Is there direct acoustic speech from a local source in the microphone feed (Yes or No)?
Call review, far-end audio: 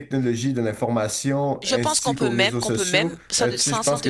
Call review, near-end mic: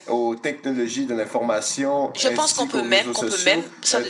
No